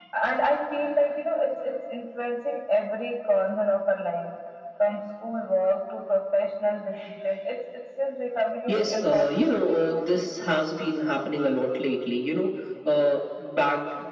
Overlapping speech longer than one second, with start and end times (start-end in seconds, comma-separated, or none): 8.7-10.1